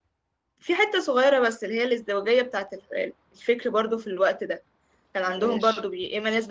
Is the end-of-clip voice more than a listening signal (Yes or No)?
No